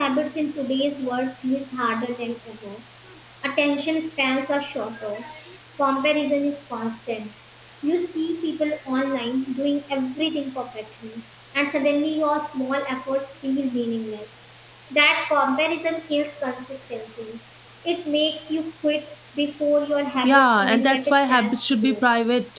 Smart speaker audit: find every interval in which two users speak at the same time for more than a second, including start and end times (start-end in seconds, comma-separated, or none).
20.2-22.0